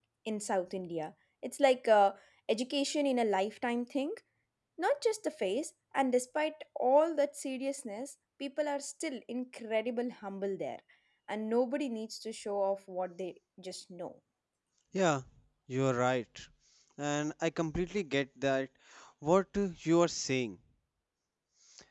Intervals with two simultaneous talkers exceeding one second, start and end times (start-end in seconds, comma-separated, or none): none